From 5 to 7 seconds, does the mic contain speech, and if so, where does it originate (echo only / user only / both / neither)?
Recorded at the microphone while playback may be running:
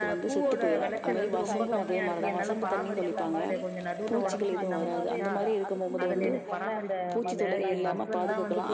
both